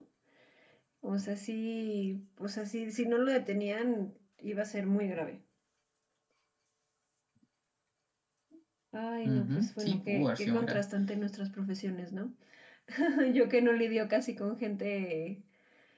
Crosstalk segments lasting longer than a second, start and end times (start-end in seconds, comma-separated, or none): 9.2-10.8